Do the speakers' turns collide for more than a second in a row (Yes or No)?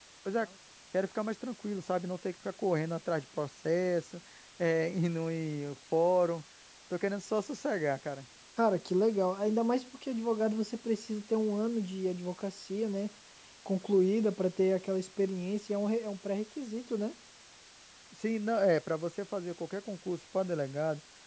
No